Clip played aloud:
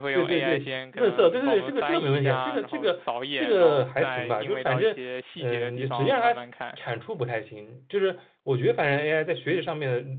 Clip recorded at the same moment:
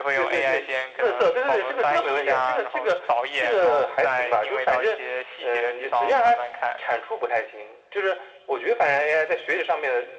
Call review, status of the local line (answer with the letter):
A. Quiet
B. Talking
A